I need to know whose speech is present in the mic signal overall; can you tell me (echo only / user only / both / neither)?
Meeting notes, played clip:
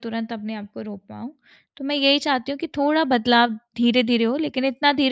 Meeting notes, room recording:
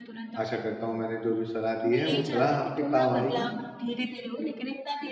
both